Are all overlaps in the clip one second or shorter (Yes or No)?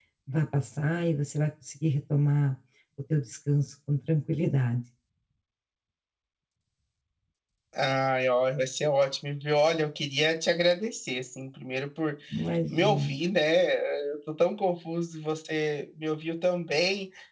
Yes